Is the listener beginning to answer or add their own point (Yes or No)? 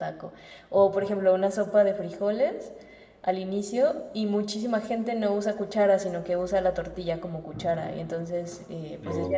No